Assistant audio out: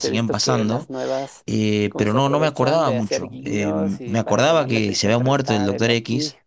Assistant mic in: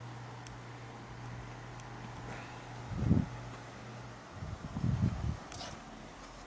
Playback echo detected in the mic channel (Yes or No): No